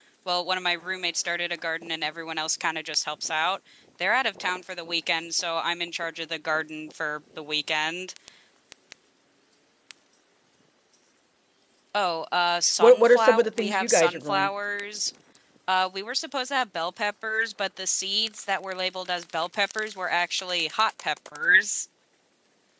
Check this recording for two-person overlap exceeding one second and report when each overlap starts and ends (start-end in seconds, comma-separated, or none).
12.8-14.5